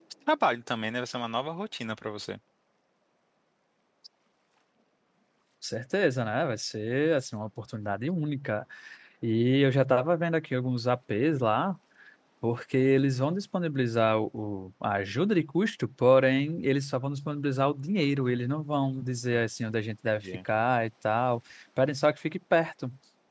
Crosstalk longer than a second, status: none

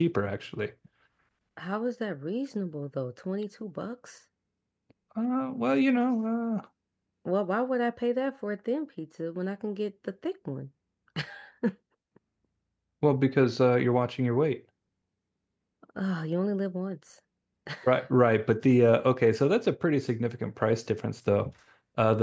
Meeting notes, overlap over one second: none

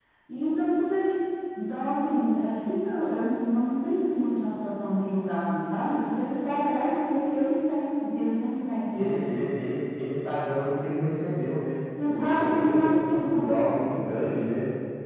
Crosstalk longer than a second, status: present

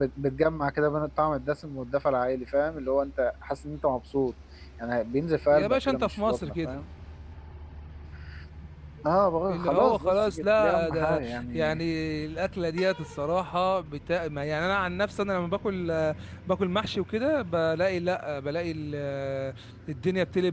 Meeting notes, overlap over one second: present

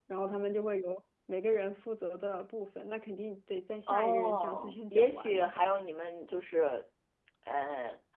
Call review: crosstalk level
present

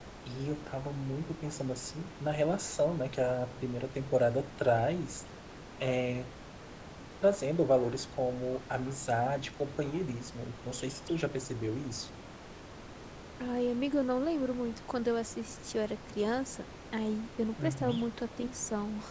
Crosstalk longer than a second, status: none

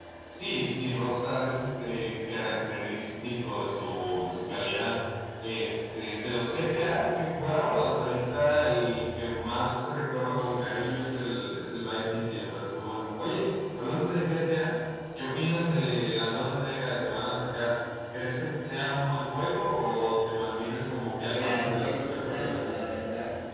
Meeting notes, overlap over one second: present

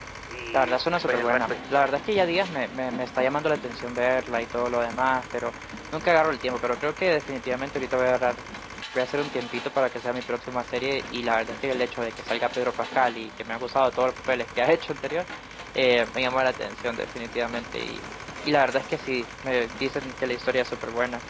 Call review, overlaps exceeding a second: present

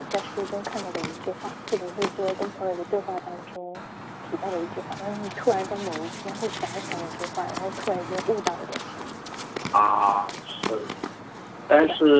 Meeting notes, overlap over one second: none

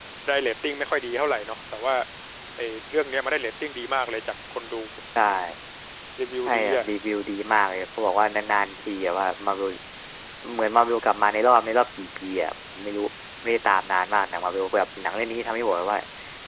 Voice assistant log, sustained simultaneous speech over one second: none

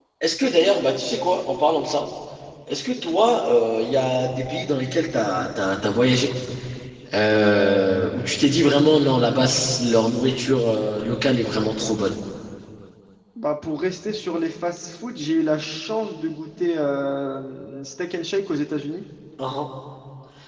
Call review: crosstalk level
none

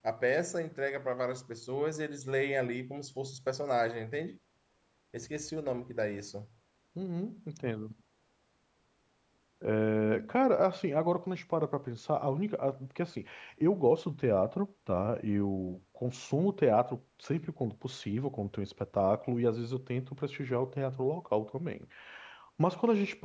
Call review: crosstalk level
none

